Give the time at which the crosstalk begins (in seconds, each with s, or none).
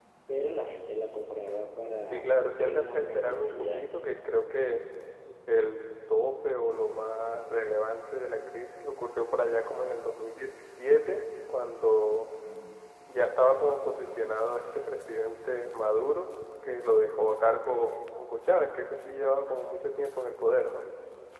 2.1 s